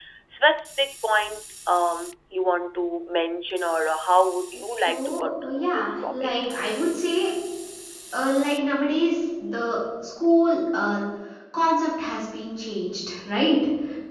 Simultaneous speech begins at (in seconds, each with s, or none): 4.9 s